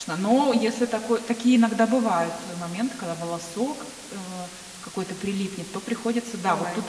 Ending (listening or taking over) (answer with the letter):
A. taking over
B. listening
B